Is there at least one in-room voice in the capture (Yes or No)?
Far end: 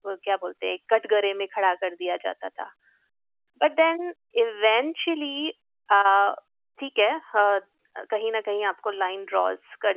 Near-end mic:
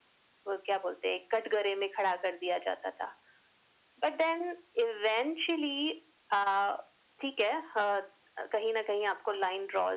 No